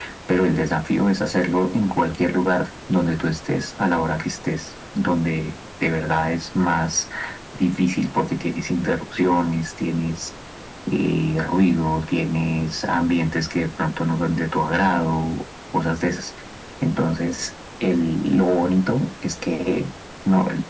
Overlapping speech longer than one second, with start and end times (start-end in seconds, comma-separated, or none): none